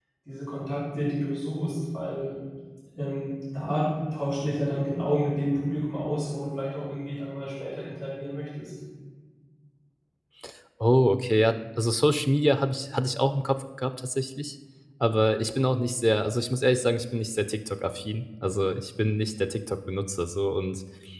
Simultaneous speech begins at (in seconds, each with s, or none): none